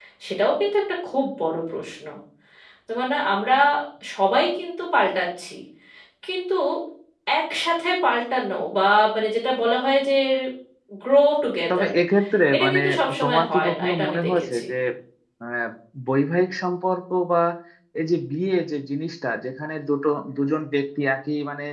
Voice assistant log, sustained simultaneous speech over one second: present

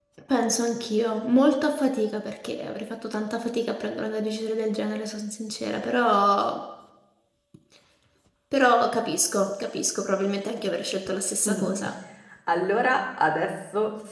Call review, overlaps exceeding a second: none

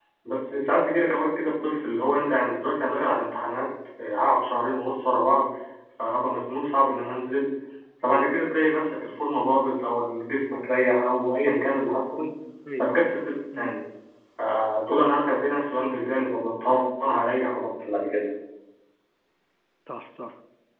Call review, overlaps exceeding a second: none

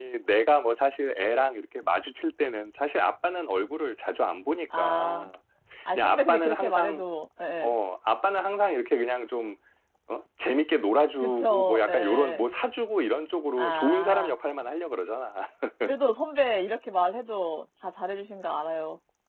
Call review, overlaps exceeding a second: present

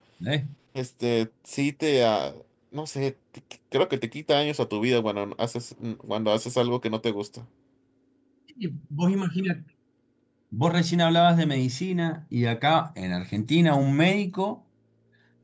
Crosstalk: none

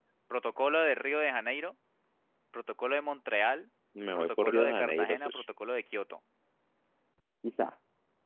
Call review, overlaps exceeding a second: present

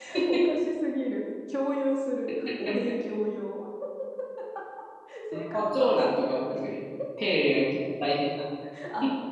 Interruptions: present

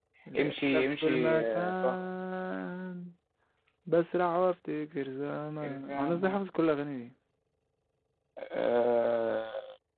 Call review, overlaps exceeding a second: present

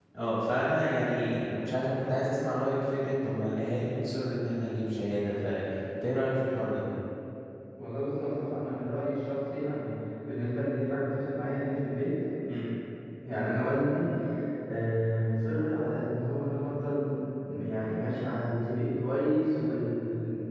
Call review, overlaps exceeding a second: none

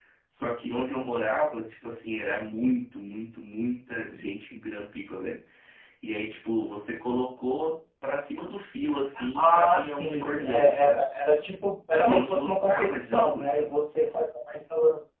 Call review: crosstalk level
present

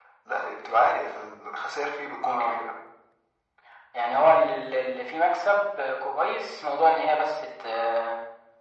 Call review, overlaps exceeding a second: none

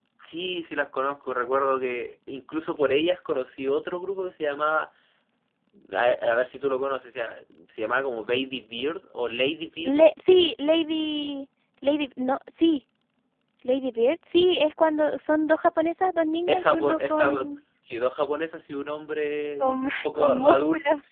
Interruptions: present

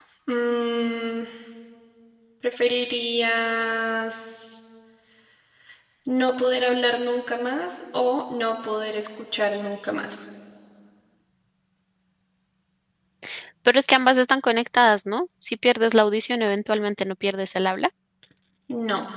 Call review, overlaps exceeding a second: none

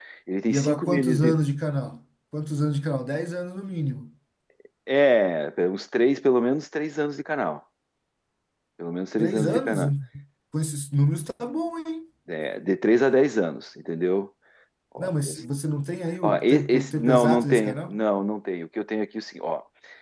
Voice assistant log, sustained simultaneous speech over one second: present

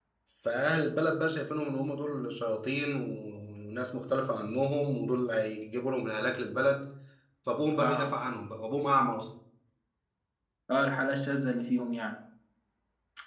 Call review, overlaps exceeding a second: none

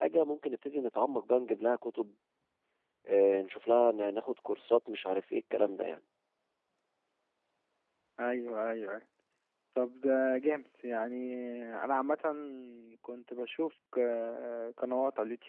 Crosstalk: none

